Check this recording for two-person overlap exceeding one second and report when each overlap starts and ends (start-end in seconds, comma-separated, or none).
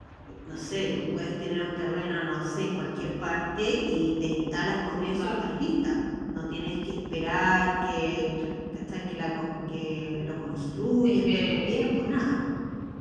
11.0-12.4